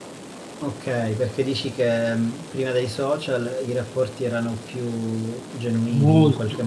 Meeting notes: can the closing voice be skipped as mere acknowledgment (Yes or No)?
No